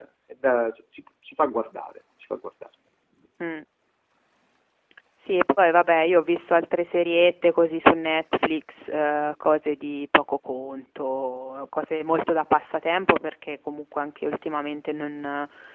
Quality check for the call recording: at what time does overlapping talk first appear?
none

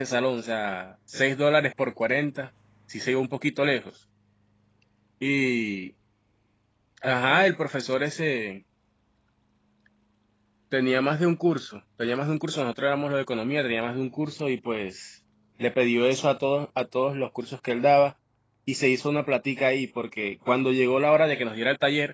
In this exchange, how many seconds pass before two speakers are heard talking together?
none

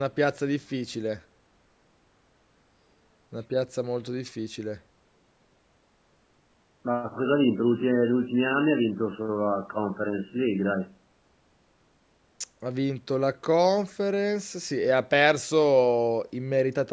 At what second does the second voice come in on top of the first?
none

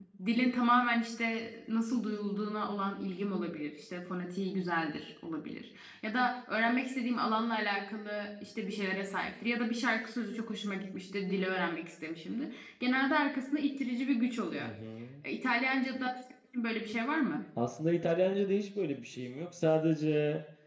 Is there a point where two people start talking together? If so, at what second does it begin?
none

